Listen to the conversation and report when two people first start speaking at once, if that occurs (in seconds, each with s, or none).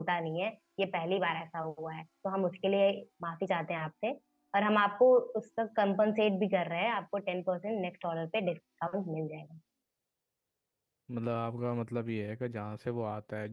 none